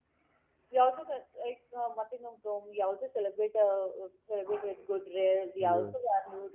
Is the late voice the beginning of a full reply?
No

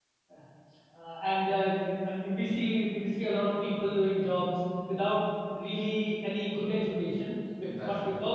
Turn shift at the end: No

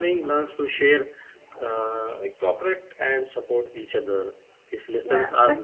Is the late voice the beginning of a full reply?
Yes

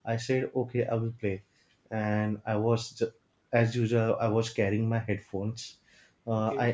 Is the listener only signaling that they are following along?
Yes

